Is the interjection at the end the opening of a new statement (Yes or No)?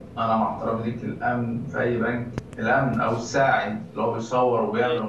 No